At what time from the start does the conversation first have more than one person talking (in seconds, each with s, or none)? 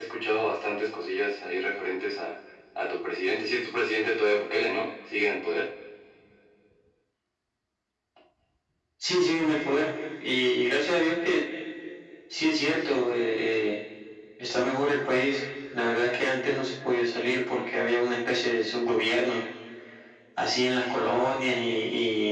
none